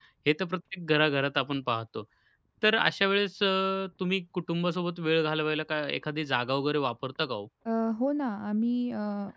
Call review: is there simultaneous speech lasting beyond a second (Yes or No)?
No